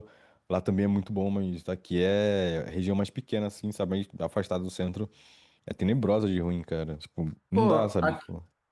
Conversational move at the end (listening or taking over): taking over